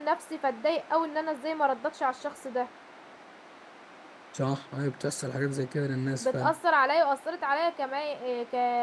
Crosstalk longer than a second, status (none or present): none